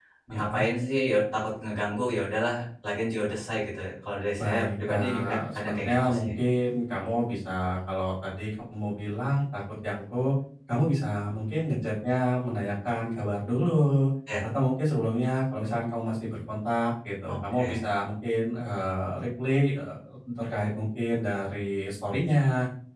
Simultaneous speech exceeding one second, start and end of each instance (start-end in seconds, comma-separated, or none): 4.4-6.3